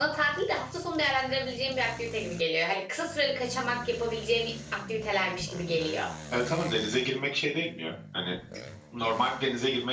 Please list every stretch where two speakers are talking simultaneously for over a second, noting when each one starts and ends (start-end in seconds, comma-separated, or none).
none